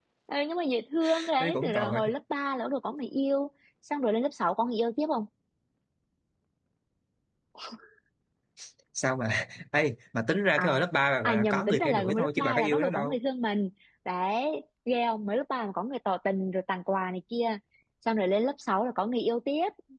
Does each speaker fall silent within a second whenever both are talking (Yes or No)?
No